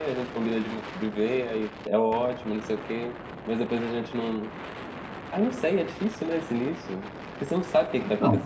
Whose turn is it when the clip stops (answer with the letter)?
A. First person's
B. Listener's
A